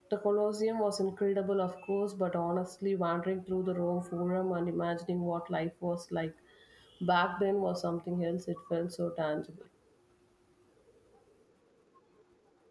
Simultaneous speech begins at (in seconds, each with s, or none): none